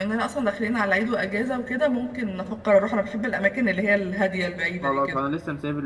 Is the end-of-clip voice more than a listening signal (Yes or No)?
Yes